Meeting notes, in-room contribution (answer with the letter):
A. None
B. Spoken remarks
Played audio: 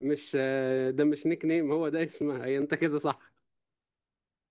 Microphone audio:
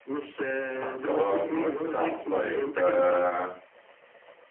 B